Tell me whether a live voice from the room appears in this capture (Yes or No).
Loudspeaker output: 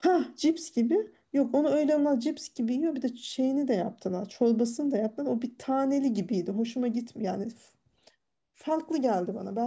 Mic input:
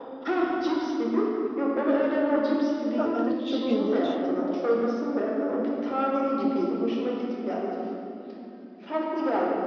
Yes